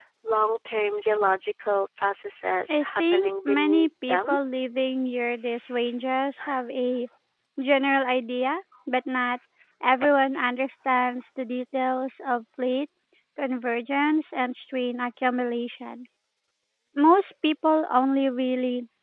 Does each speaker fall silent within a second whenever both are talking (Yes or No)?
No